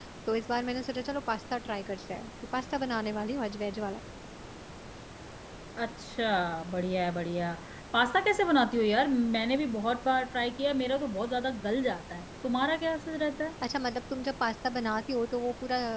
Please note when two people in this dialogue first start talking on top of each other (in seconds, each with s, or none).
none